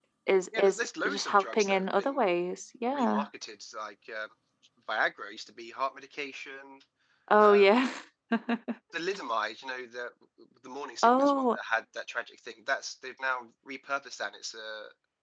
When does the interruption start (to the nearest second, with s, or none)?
1 s